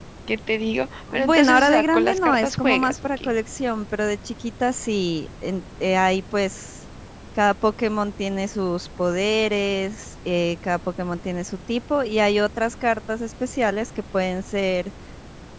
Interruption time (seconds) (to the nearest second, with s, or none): 1 s